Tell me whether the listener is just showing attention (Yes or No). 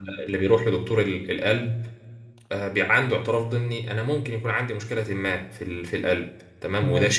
Yes